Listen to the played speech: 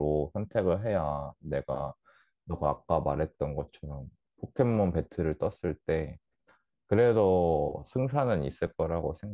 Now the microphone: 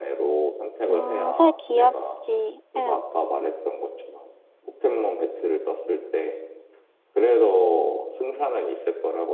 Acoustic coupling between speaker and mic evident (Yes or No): Yes